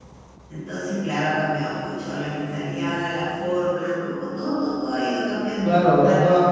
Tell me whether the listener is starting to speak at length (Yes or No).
Yes